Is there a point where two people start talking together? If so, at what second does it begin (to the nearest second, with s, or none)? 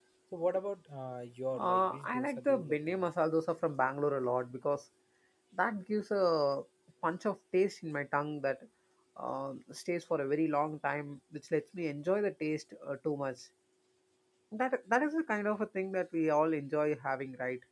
2 s